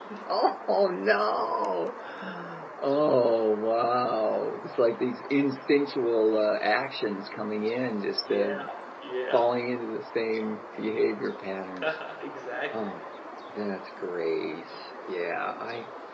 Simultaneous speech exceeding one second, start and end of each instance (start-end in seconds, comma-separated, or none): none